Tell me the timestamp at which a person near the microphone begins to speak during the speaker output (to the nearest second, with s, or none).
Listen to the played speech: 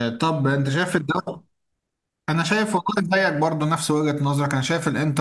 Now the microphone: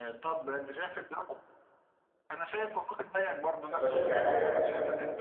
4 s